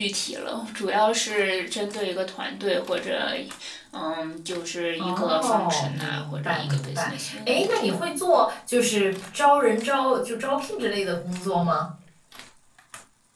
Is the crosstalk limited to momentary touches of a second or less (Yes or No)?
No